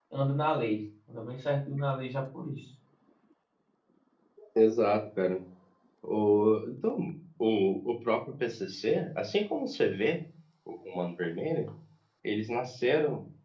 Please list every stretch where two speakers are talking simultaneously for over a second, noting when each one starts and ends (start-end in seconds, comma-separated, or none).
none